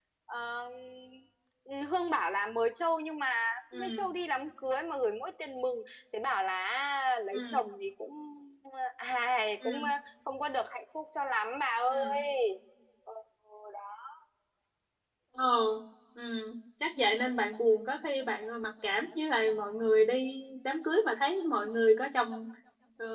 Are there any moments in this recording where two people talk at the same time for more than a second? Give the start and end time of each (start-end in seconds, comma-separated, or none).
none